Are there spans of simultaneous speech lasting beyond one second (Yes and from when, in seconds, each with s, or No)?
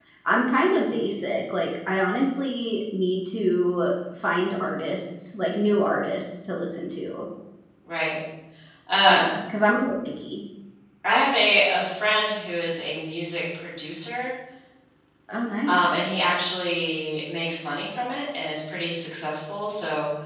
No